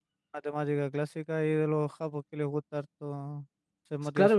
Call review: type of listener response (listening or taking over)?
taking over